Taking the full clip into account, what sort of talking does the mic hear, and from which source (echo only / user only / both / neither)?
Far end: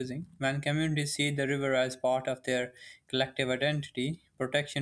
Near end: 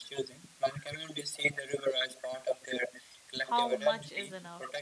both